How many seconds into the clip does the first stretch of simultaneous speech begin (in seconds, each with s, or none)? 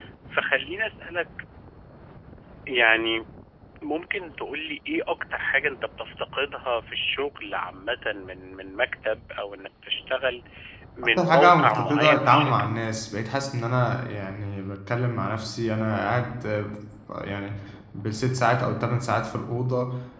11.2 s